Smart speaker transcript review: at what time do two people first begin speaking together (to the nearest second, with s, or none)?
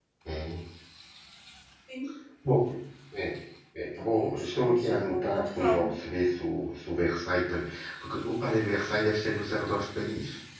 4 s